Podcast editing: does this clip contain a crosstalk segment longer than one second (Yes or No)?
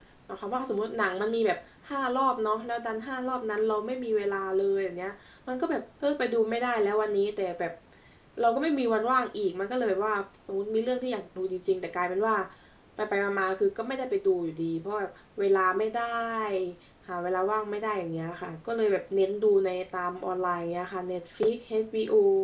No